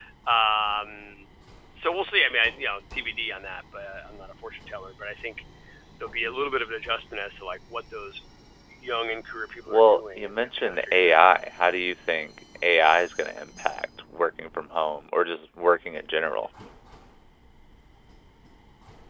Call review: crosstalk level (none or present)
present